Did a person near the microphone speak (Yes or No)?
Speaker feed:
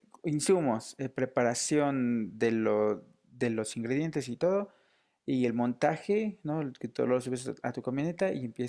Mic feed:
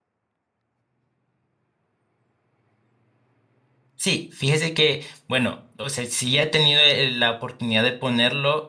Yes